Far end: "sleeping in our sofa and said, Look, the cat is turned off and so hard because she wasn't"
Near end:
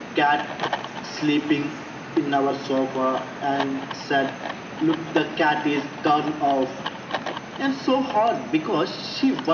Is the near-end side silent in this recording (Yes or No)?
Yes